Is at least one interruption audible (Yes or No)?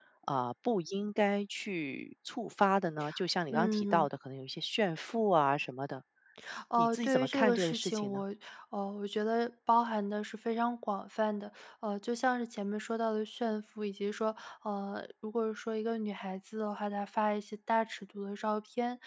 Yes